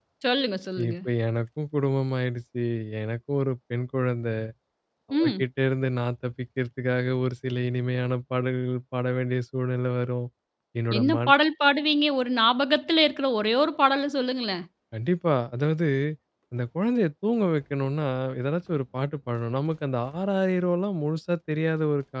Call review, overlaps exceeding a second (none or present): none